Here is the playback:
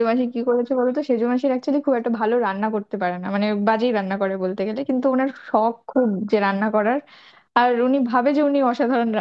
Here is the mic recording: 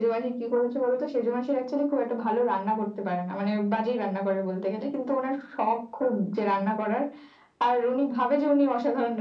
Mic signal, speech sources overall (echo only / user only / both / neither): echo only